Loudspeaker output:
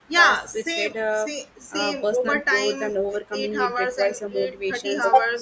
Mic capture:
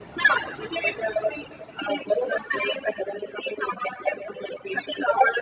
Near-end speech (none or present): none